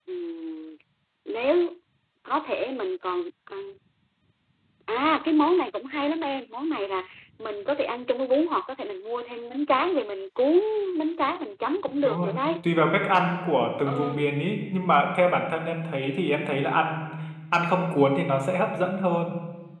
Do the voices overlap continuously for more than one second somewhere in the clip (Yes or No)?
No